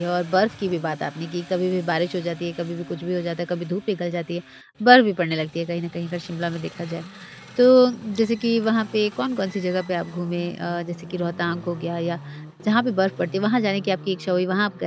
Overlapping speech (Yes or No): No